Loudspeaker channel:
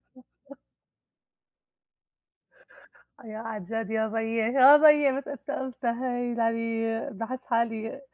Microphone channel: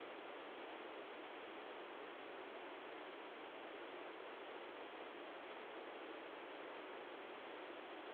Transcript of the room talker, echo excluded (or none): none